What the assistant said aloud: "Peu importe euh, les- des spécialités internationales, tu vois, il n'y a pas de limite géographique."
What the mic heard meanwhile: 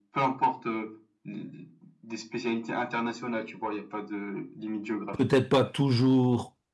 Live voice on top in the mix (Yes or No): Yes